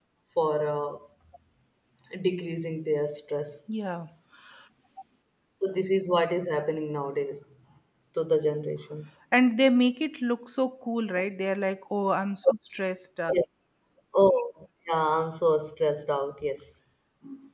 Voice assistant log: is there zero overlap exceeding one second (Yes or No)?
Yes